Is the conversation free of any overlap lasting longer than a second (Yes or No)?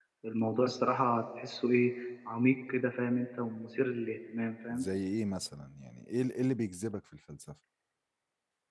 Yes